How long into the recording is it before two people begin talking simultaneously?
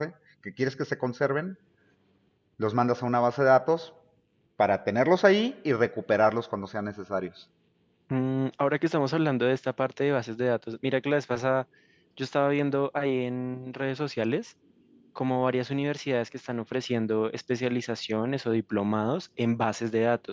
none

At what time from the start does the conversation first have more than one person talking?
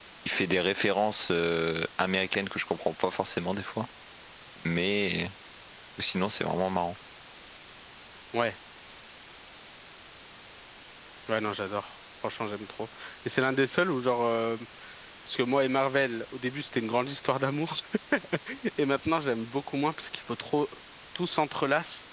none

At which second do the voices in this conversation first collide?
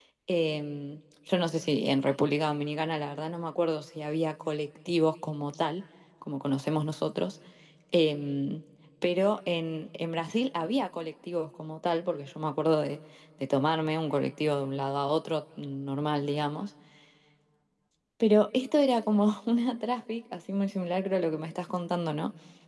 none

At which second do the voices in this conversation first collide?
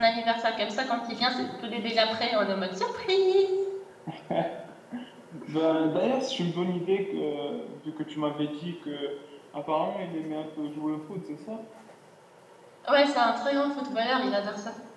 none

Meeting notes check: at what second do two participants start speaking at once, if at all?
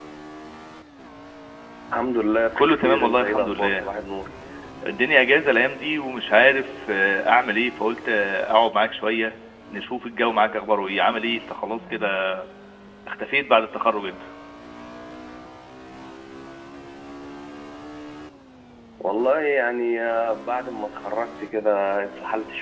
2.6 s

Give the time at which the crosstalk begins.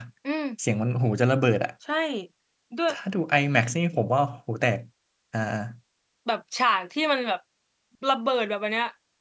none

